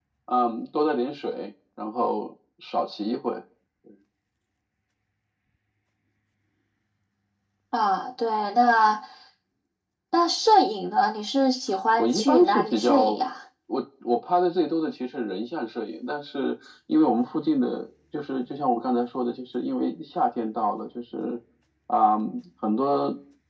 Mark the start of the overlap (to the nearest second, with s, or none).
12 s